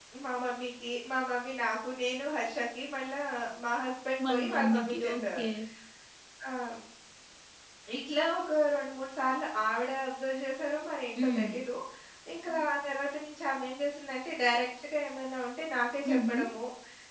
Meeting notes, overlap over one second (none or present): present